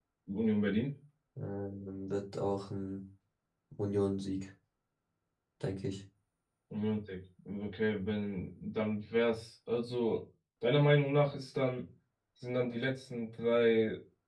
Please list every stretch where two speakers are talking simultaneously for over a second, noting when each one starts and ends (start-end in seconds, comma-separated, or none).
none